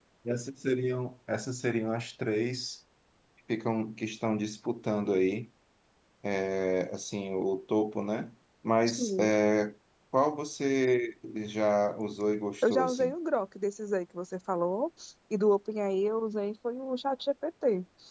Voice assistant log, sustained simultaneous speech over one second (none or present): none